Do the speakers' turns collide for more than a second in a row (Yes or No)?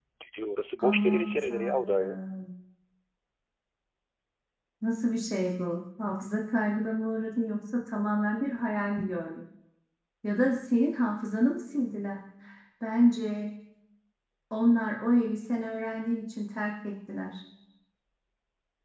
Yes